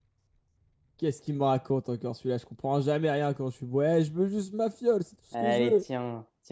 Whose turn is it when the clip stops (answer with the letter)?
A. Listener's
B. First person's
A